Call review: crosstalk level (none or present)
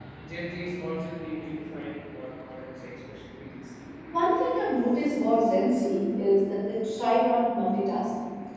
none